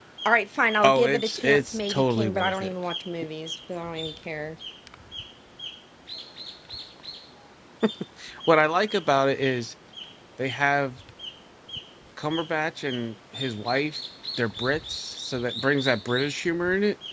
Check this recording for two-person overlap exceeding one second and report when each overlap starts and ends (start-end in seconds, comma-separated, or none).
0.8-2.7